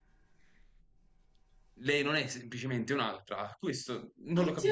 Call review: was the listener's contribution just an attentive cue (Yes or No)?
No